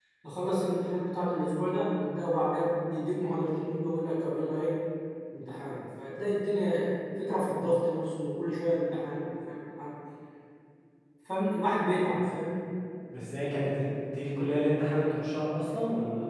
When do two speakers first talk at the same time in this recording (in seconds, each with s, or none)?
none